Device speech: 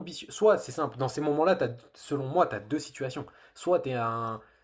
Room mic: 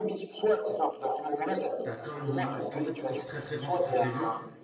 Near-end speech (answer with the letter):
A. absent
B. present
B